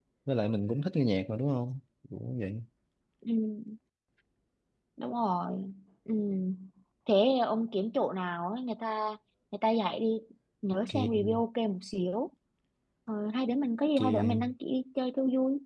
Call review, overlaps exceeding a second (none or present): none